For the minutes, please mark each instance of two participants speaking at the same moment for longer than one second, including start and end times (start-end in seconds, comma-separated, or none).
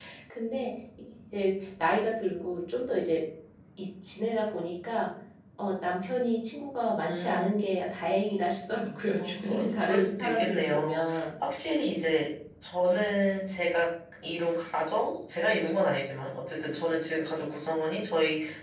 9.2-11.0